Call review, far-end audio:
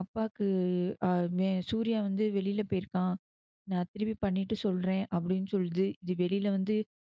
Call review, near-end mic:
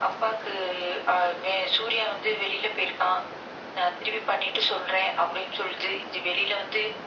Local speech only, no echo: none

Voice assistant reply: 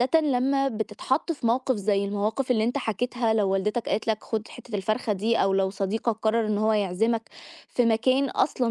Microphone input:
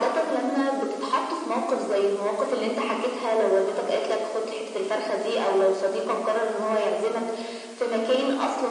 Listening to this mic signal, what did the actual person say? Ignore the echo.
none

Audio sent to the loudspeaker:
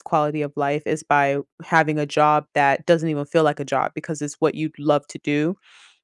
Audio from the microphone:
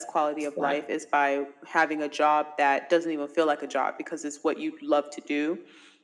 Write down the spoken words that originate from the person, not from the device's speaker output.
Exactly.

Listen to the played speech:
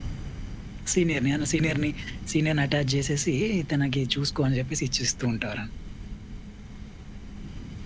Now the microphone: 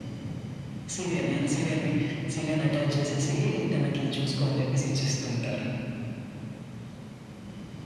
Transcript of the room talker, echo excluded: none

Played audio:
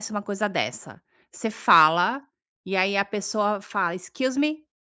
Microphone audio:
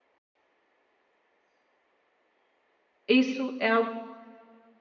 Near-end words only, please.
isso é algo que

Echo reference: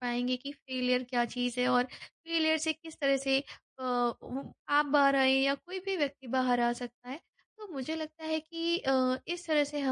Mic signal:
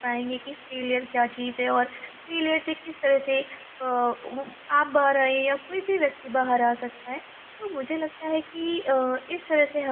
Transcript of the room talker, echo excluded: none

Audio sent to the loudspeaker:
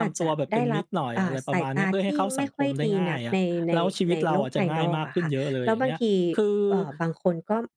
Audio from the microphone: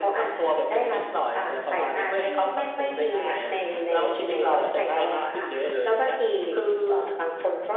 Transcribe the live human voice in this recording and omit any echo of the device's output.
none

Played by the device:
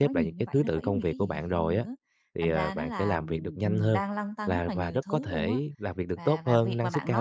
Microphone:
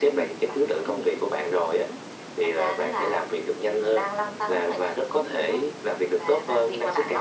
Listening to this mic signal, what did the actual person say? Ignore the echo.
none

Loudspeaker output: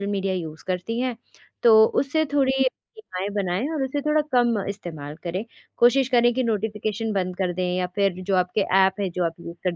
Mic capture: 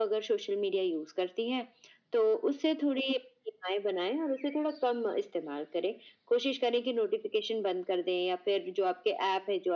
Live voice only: none

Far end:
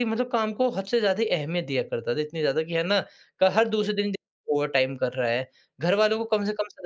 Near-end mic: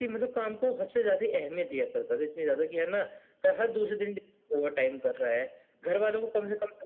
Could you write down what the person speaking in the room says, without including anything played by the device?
none

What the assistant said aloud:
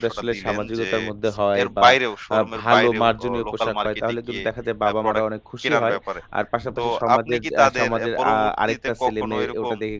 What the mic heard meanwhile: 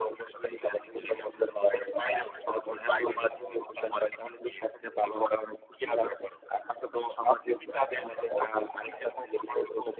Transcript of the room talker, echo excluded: none

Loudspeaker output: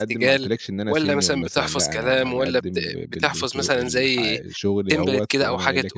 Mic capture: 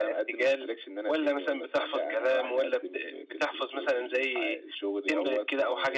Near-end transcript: فدي بصراحة كانت

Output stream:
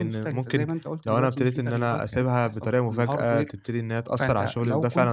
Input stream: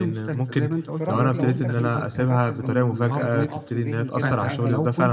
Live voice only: في رأيك لو أنت كنت استفدت من في جلسات عصف ذهني كده معاهم

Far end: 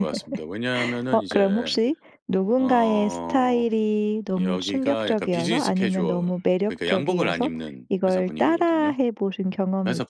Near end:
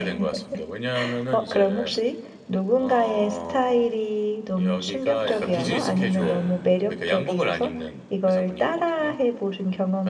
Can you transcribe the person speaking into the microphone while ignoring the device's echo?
맞는 옷 네

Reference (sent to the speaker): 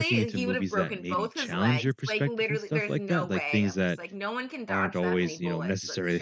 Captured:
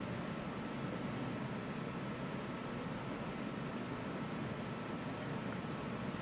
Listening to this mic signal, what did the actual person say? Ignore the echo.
none

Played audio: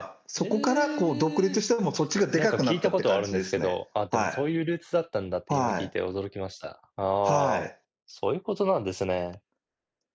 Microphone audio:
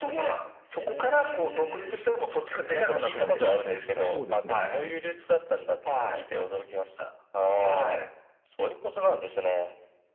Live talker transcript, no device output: 確かに確かに。そうですね。

